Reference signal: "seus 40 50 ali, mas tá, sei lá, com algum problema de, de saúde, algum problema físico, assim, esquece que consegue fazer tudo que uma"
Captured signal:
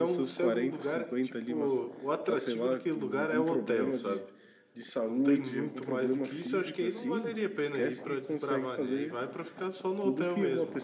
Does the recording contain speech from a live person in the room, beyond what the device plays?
Yes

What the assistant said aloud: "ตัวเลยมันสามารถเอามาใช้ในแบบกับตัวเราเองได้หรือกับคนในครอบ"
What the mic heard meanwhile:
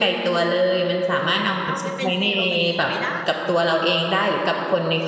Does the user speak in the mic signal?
Yes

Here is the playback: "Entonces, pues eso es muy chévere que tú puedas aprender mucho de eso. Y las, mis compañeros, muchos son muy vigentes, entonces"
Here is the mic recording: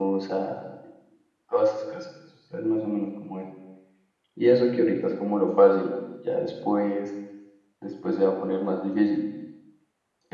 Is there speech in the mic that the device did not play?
Yes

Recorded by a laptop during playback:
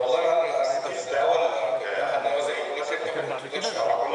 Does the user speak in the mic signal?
Yes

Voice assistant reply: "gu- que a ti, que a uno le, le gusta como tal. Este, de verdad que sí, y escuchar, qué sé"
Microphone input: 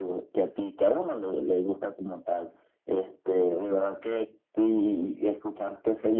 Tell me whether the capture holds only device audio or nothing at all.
Yes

